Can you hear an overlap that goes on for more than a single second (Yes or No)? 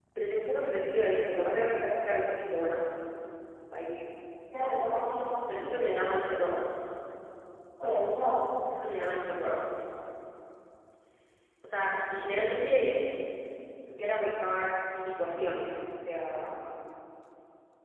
No